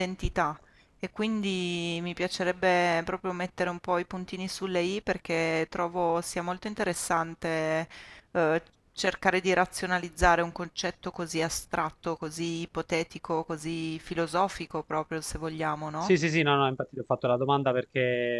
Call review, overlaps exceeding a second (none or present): none